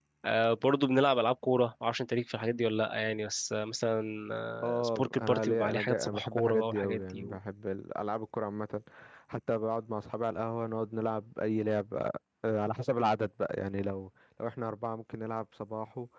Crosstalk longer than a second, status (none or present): present